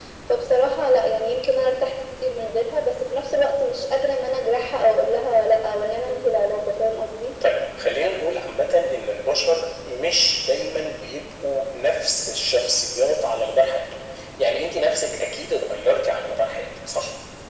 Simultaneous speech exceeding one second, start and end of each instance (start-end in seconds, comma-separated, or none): none